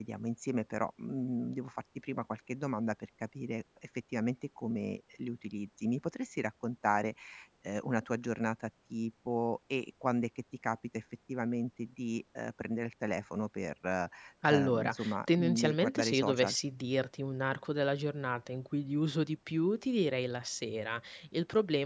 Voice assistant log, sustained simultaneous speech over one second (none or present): present